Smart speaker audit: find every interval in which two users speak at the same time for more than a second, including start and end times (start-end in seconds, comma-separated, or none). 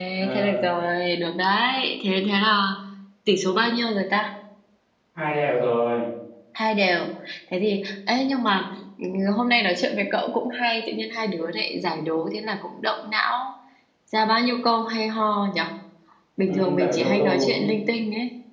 16.5-17.7